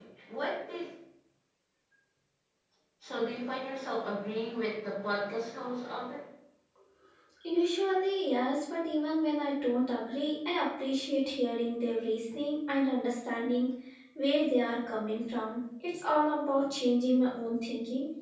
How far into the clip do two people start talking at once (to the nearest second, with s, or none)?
none